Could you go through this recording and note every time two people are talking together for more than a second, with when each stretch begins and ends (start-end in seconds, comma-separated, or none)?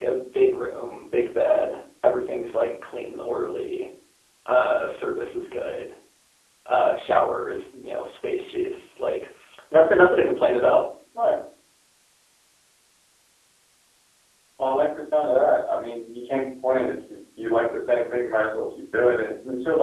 none